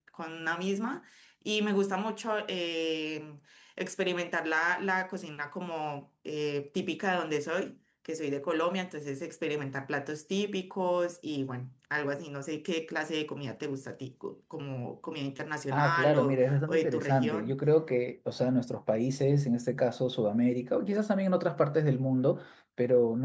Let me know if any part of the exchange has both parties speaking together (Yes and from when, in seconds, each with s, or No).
Yes, from 15.7 s